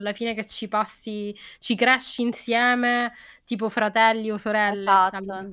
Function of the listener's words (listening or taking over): taking over